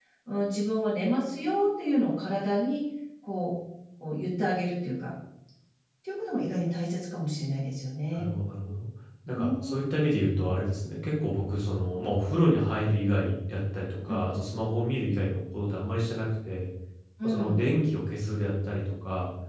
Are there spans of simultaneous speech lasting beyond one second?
No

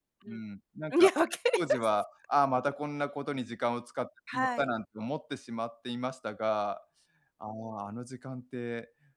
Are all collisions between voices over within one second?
Yes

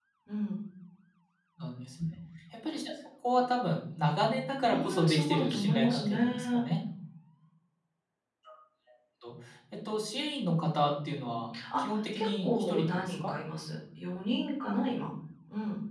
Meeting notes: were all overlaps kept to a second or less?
No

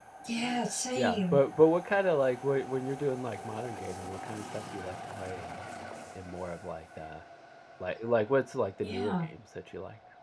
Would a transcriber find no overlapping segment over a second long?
Yes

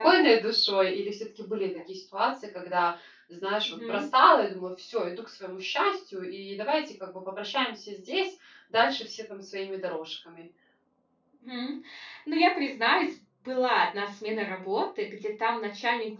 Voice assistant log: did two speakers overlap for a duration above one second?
No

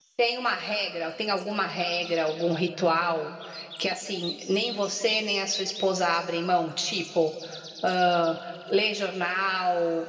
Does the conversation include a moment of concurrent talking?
No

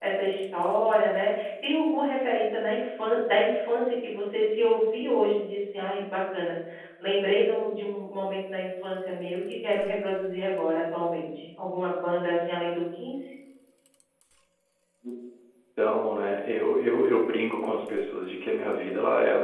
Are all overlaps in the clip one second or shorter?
Yes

